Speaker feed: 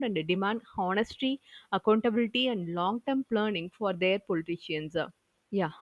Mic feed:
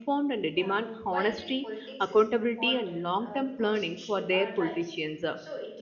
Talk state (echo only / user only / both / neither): both